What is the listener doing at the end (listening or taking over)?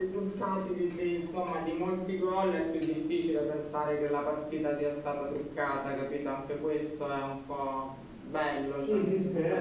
taking over